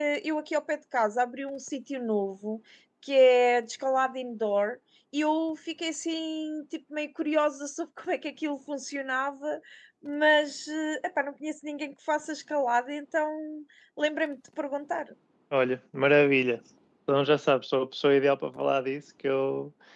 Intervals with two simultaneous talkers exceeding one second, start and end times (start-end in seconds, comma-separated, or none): none